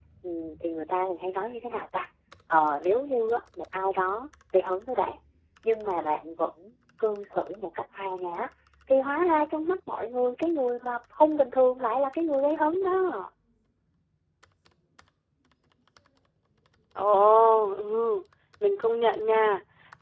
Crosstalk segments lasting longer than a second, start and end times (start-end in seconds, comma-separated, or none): none